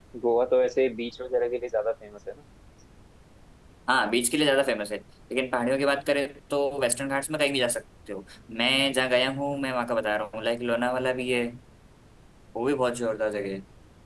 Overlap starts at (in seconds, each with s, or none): none